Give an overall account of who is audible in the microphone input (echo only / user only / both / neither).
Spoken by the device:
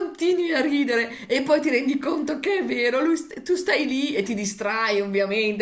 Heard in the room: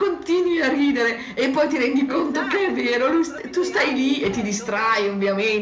both